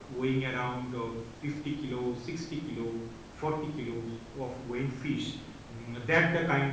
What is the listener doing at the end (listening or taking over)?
listening